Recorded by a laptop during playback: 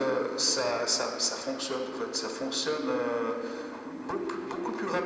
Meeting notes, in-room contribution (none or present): none